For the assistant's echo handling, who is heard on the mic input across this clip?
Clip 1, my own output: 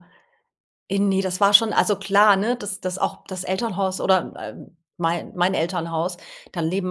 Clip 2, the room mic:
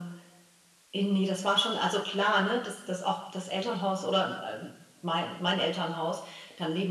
echo only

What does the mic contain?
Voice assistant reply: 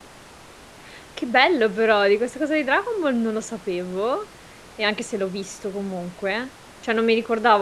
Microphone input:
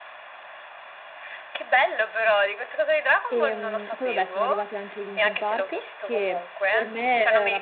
both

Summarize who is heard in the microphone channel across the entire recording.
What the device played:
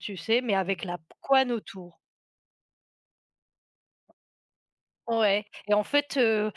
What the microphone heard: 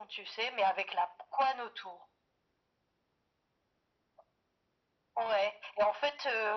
echo only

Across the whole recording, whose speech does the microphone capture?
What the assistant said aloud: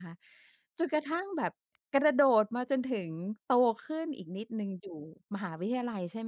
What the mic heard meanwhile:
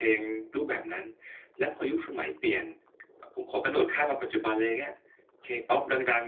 user only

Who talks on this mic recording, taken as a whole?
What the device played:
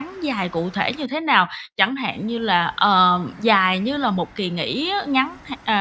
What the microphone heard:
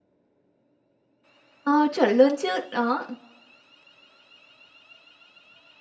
user only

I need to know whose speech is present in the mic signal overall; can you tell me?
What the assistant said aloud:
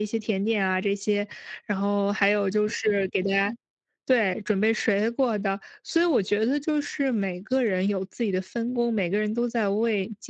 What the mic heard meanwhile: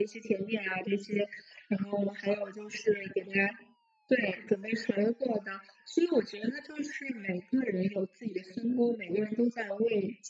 echo only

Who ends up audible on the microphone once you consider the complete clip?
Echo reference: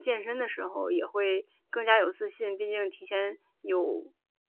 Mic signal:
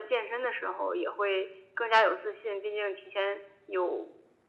echo only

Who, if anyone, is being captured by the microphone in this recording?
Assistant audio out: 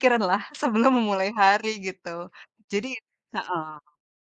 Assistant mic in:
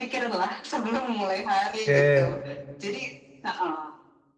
both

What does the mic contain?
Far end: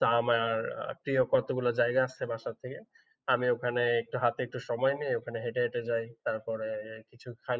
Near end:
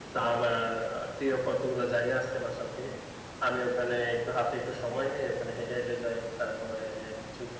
echo only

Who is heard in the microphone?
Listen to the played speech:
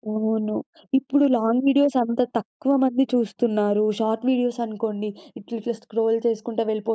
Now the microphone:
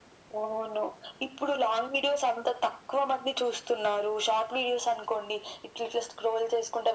echo only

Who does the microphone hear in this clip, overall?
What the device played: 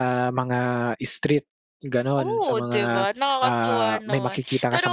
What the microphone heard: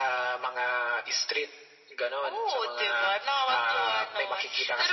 echo only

